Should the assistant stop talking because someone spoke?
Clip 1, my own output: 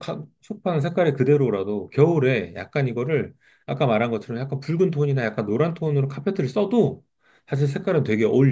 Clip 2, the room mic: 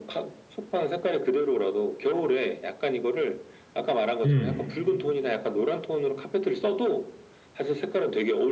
Yes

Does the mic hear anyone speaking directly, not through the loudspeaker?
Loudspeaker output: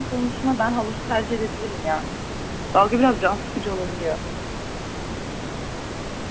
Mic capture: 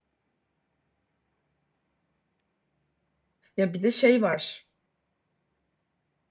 Yes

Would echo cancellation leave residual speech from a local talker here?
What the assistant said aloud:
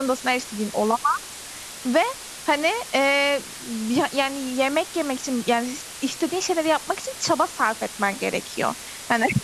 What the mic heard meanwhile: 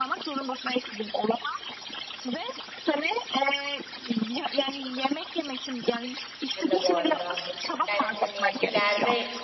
Yes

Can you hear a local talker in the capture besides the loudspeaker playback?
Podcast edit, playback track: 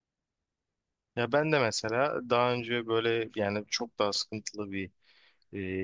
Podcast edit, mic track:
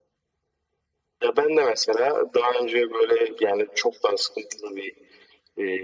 No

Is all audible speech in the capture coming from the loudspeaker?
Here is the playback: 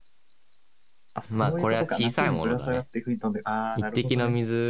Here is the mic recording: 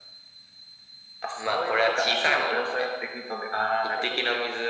Yes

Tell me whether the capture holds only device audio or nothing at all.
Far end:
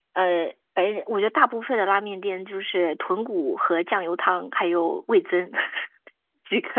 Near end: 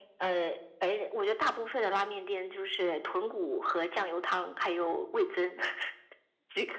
Yes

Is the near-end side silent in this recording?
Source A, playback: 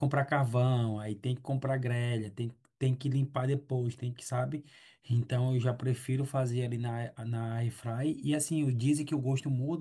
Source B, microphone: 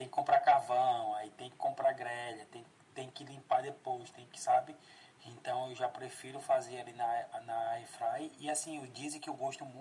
Yes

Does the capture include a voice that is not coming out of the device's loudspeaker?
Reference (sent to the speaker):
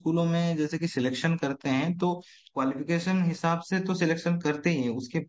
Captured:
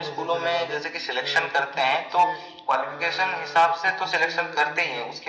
Yes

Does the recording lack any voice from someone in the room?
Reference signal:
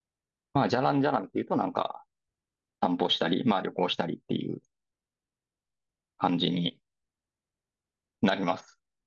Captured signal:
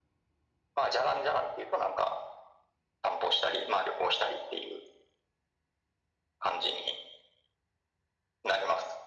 Yes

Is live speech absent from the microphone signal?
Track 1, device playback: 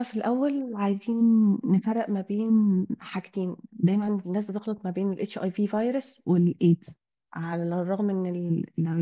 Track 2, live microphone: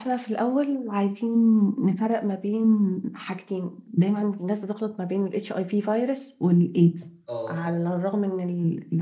No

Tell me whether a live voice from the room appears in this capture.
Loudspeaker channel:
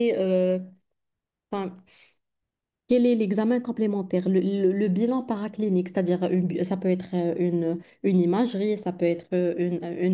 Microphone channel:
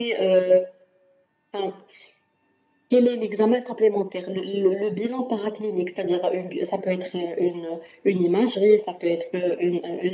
No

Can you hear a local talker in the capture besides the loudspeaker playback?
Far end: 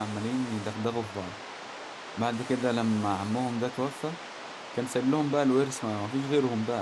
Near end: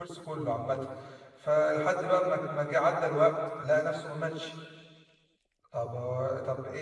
Yes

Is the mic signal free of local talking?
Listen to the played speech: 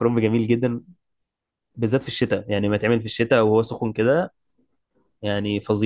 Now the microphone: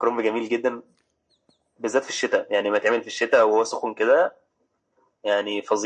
Yes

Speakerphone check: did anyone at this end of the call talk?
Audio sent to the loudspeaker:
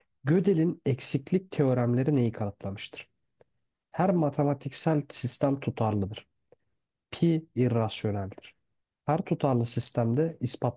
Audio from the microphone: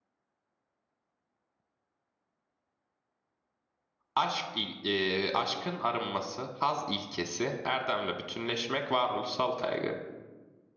Yes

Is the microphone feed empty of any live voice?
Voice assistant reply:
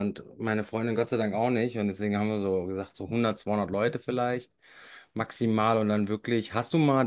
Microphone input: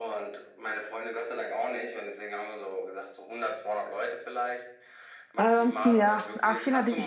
No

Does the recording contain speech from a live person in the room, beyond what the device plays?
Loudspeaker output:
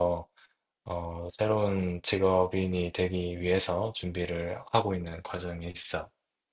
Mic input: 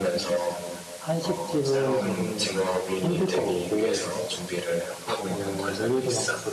Yes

